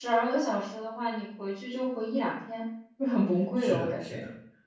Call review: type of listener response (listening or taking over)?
taking over